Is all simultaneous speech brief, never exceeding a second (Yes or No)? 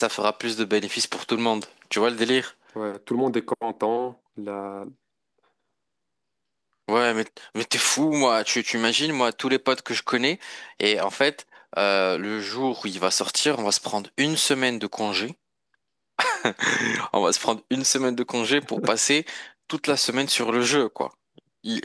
Yes